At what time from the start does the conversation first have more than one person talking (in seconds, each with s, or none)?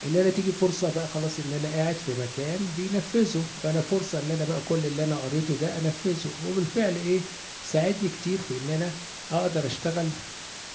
none